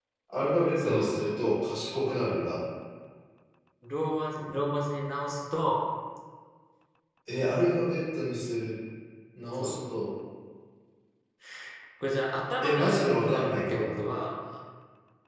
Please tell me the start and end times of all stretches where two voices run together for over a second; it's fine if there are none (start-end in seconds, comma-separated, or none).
12.6-13.9